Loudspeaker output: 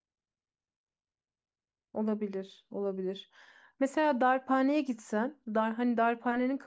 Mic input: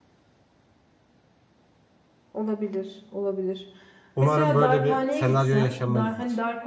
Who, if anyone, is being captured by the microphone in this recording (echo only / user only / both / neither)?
both